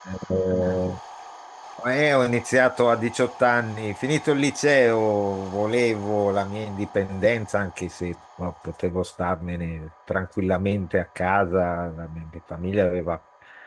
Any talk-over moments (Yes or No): No